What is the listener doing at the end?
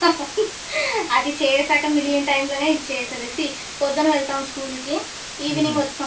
listening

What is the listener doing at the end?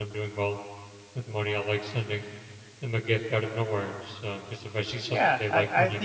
taking over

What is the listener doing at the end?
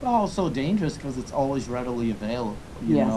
taking over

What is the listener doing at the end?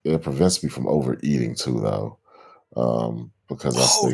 taking over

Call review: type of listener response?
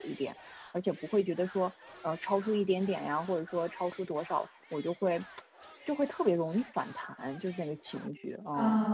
taking over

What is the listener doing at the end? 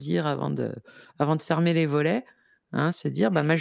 listening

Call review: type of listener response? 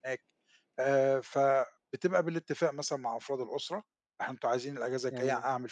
listening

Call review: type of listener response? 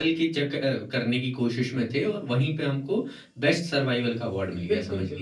taking over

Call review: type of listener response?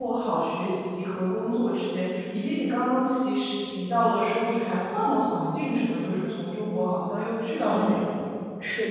taking over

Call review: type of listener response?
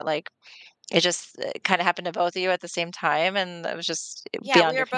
taking over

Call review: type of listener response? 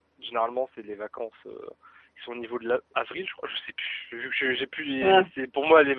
listening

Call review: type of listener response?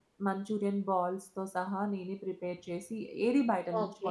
taking over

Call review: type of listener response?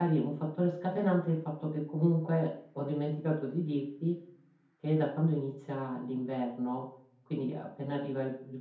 listening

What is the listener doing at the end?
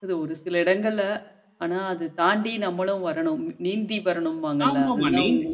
taking over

